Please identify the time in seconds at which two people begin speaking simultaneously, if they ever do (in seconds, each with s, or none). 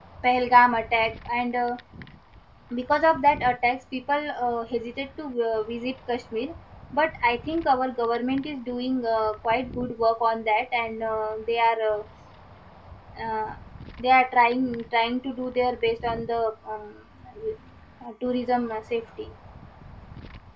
none